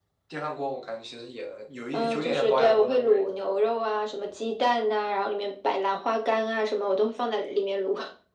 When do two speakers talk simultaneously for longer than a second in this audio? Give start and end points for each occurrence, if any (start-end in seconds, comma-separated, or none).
1.9-3.6